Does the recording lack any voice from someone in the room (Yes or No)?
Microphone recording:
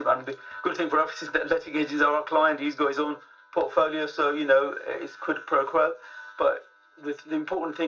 Yes